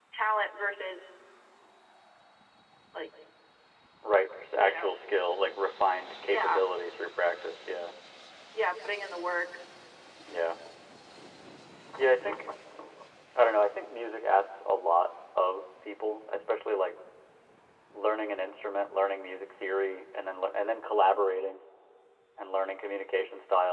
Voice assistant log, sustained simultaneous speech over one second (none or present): none